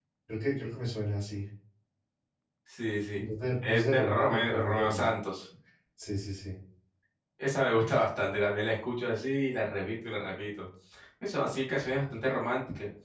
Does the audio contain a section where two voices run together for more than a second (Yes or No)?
Yes